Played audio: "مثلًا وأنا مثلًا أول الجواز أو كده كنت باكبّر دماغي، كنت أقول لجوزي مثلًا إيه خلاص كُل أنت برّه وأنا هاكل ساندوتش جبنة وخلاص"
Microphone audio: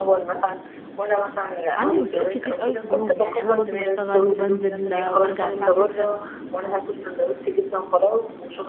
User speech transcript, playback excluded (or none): عندي مسؤوليات كتير أوي في اليوم، يعني أنا برضه باشتغل وبانزل وبارجع الساعة 18:00